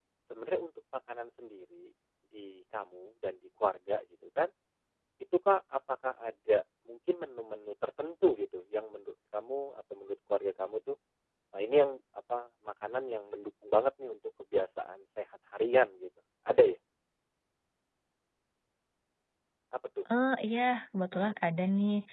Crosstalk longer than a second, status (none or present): none